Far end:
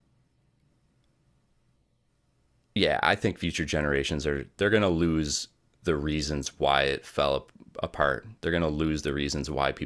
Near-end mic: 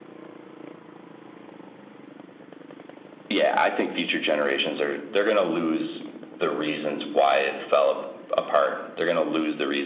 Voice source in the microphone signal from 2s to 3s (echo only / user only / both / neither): neither